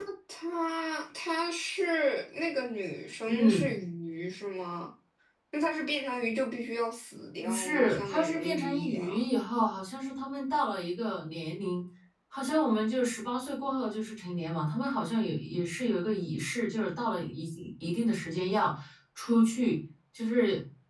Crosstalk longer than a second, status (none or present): present